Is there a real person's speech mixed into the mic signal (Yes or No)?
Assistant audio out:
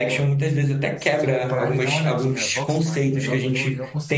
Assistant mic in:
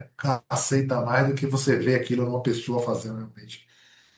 Yes